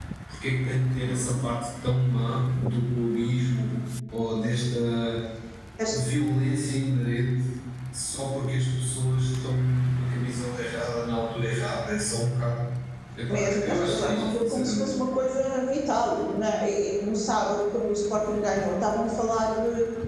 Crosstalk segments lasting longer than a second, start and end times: 13.3-14.9

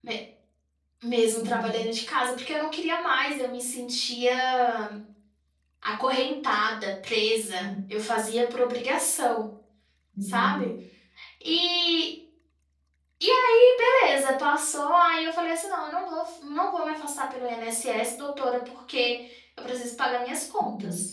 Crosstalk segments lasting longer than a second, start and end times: none

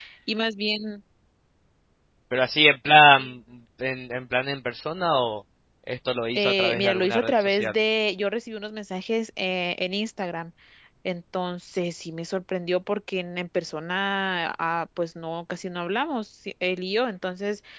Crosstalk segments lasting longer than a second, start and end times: 6.4-7.8

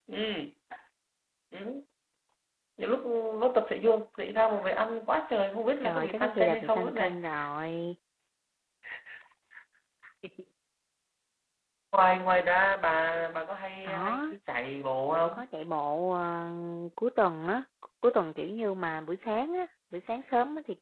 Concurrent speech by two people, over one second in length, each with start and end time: 5.8-7.1

